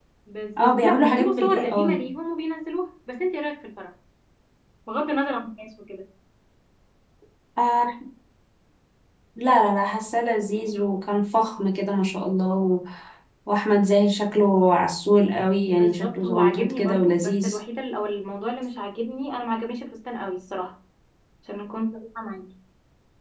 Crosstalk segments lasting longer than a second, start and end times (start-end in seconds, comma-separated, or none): 0.6-2.0, 15.7-17.6